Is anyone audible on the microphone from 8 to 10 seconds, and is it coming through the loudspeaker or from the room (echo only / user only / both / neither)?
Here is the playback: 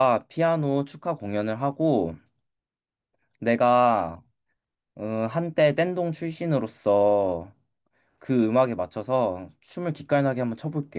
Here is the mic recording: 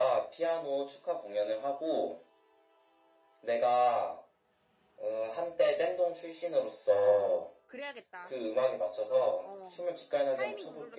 both